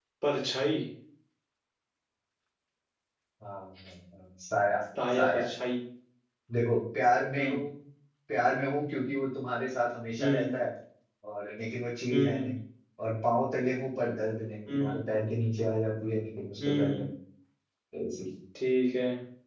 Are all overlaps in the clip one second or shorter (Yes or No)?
Yes